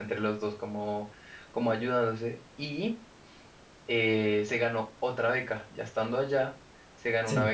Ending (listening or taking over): listening